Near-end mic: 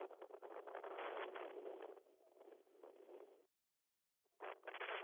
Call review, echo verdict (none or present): none